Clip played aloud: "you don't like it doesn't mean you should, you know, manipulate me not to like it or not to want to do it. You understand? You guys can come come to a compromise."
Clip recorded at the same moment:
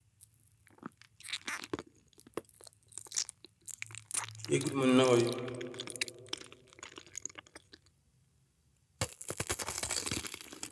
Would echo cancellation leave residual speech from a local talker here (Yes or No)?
Yes